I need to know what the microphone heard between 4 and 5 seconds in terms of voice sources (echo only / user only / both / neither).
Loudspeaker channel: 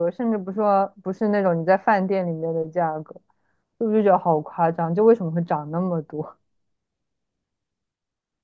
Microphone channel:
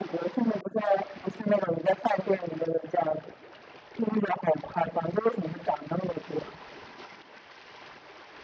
echo only